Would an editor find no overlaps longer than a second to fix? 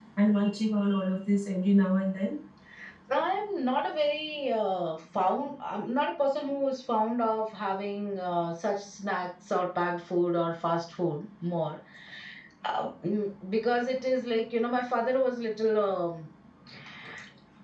Yes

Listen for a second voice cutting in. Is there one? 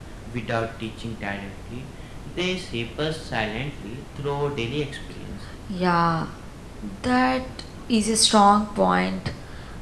No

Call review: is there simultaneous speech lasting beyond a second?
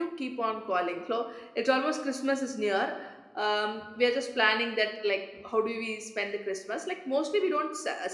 No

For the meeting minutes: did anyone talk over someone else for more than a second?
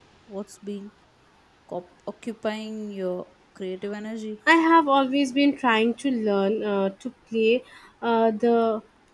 No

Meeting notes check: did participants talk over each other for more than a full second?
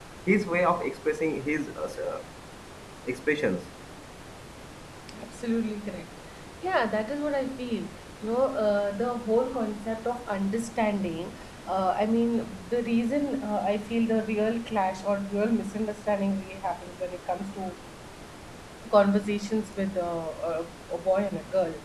No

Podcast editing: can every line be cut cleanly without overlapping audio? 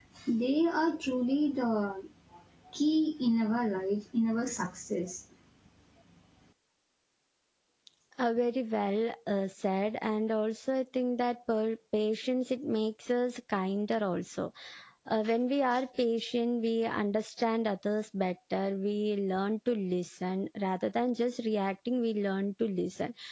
Yes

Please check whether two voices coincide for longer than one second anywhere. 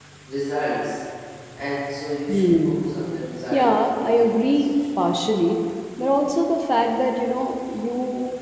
Yes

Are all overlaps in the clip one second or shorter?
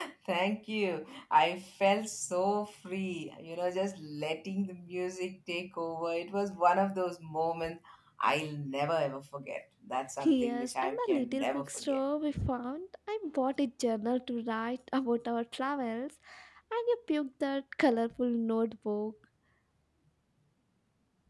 No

